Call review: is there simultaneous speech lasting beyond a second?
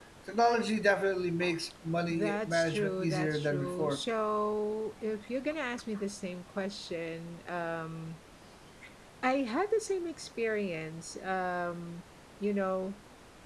Yes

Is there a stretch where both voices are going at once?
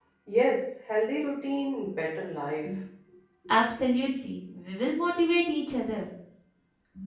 No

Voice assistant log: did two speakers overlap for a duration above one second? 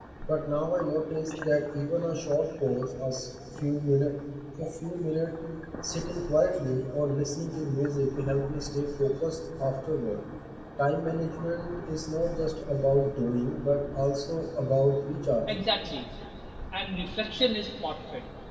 No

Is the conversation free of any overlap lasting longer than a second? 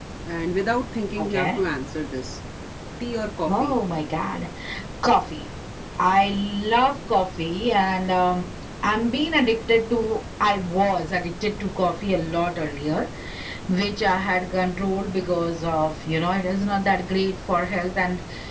Yes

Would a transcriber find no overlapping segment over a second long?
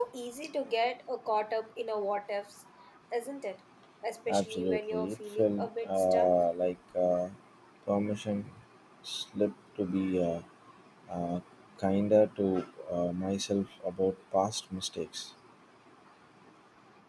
No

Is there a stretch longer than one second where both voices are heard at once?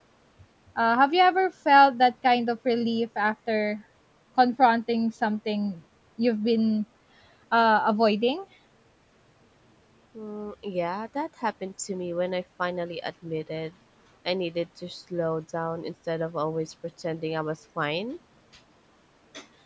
No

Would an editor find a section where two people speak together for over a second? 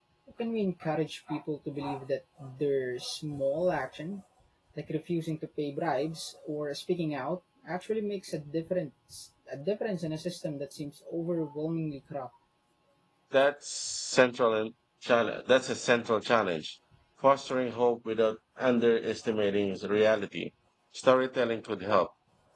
No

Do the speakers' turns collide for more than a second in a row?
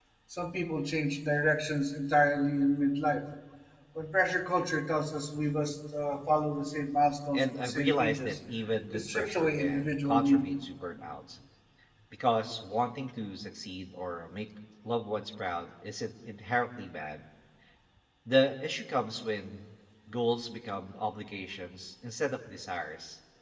Yes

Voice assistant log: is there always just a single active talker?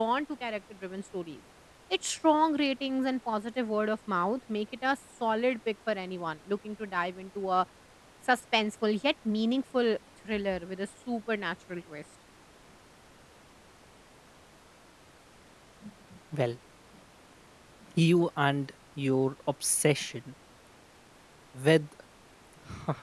Yes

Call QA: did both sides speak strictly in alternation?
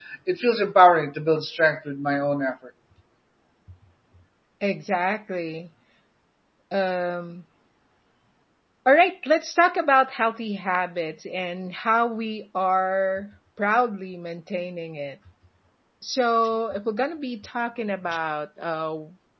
Yes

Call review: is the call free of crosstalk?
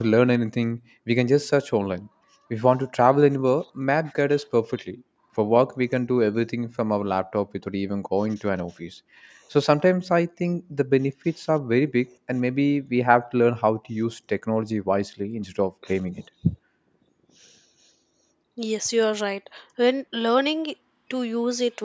Yes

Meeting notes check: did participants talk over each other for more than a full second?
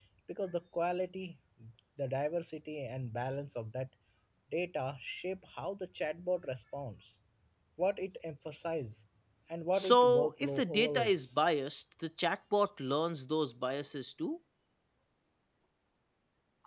Yes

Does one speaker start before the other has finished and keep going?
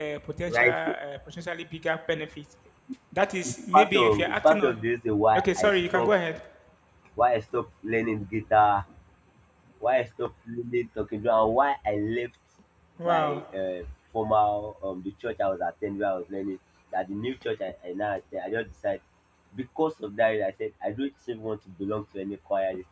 Yes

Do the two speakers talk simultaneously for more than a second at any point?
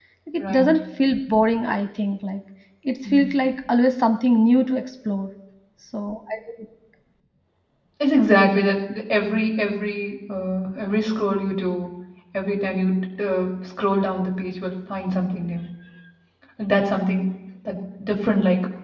No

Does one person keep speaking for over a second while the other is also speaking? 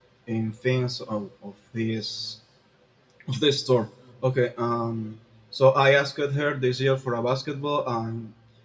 No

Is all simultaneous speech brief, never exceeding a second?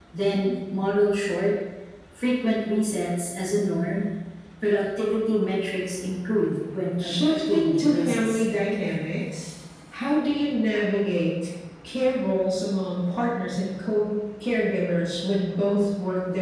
No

